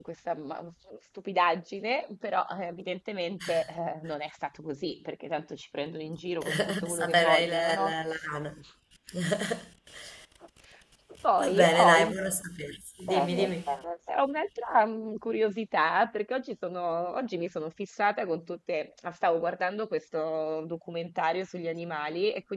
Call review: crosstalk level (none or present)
present